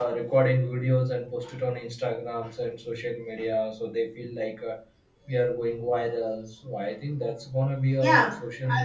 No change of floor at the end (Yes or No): No